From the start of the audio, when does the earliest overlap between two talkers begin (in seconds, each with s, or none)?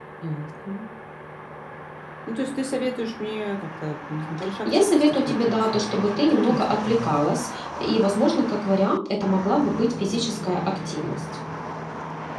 4.7 s